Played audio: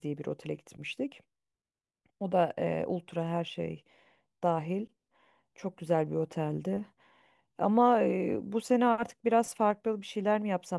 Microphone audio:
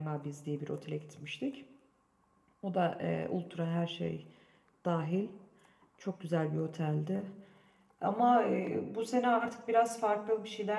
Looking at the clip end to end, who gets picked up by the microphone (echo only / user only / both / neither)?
echo only